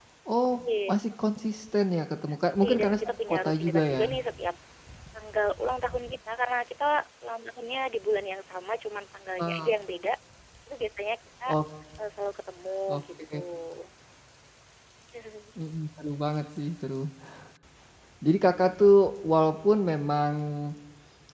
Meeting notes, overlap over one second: present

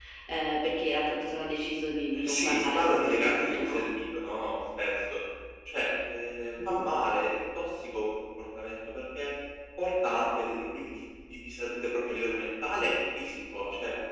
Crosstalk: present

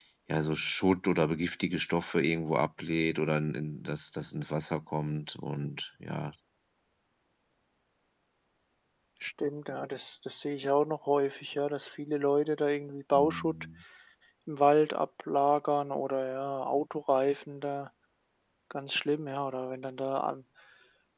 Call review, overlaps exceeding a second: none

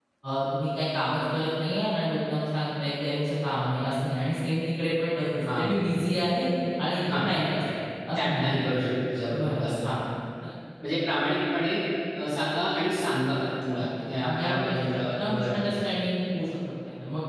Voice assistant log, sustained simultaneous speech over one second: present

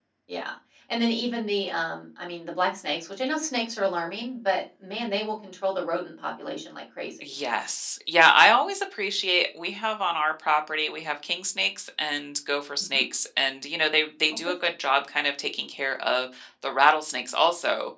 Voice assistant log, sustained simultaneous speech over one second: none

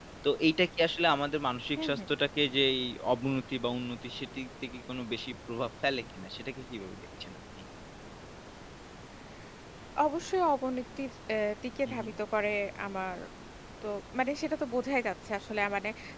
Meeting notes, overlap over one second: none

